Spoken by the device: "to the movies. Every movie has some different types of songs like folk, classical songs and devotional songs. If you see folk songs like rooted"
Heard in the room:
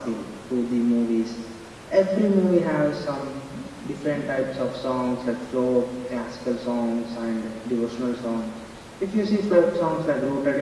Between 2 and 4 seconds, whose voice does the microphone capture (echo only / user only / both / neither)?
echo only